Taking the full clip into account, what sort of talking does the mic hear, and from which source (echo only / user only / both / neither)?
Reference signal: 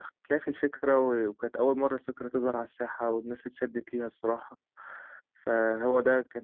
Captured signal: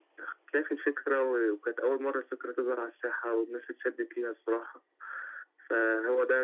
echo only